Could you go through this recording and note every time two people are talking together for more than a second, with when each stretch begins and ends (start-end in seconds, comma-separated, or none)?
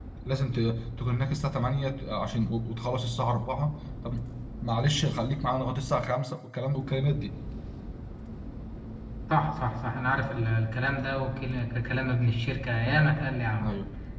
none